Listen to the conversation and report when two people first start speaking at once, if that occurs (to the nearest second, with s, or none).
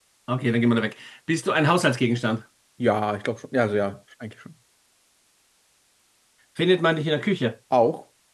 none